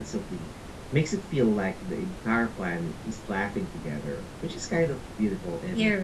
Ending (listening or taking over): taking over